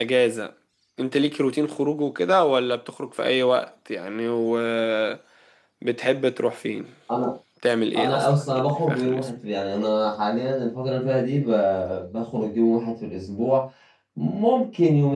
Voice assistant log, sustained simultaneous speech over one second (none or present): present